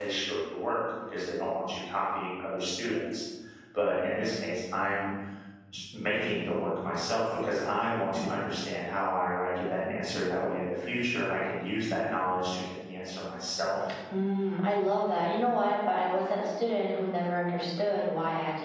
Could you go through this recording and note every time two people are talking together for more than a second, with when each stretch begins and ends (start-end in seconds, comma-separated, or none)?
none